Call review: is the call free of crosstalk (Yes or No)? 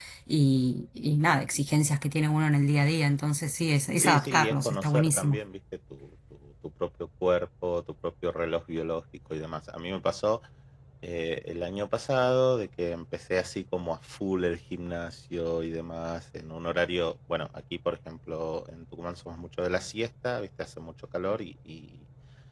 No